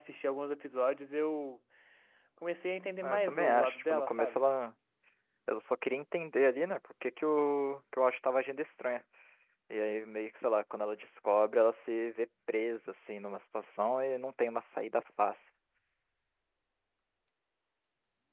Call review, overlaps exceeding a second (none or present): present